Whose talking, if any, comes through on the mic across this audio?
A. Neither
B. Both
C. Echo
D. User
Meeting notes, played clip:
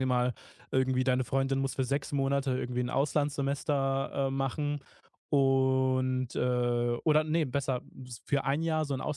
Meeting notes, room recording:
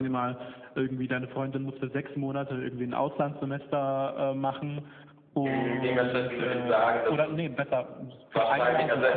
B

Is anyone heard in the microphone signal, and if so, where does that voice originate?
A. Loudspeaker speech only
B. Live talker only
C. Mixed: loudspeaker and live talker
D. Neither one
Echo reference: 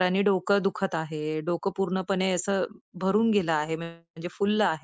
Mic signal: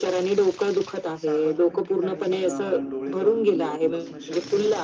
C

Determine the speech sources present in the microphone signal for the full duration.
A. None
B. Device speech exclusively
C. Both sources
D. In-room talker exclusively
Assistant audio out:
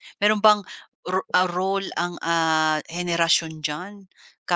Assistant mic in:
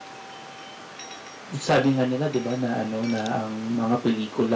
D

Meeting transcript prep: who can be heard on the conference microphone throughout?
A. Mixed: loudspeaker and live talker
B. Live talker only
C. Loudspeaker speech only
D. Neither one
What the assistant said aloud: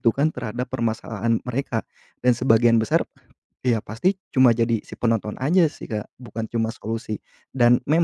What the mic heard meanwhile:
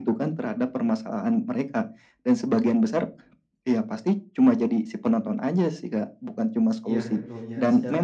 A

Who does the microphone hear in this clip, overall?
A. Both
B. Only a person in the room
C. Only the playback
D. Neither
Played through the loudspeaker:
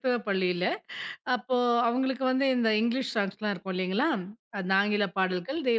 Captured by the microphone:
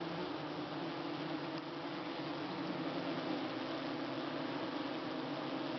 D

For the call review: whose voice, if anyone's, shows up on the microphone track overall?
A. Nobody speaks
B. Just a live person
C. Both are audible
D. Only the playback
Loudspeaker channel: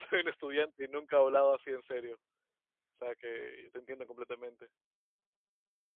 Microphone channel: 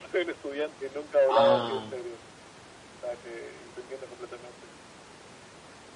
C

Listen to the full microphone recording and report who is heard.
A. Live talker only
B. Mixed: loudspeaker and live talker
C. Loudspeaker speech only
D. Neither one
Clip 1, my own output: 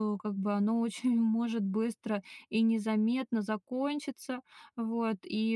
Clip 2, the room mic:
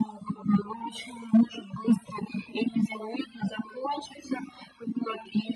C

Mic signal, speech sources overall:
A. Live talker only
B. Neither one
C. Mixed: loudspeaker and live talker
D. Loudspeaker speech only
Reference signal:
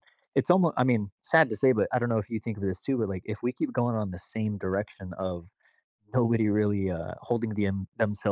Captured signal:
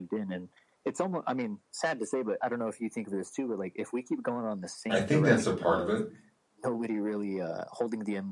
C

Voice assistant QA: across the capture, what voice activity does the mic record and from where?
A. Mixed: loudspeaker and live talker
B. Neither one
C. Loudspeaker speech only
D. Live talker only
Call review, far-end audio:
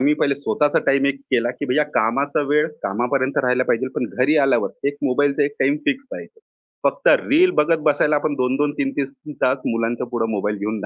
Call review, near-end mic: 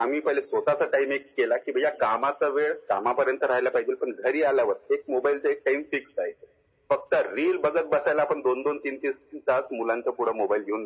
C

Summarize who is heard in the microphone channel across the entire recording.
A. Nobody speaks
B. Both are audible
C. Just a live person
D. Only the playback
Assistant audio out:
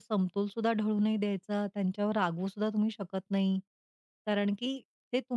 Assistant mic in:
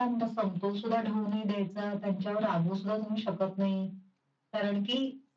D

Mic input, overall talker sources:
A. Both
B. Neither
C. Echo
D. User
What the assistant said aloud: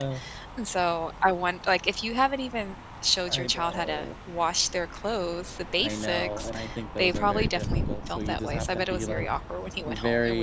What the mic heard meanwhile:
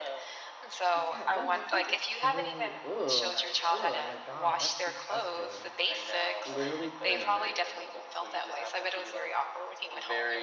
A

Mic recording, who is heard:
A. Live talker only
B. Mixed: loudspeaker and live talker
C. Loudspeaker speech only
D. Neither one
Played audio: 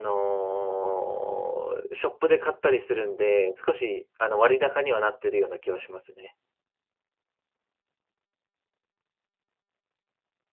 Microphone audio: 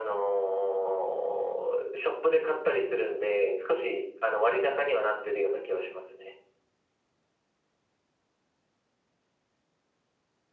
C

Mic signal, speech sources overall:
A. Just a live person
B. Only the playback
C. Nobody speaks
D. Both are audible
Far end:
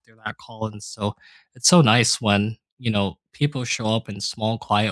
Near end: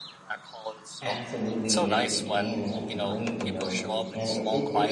D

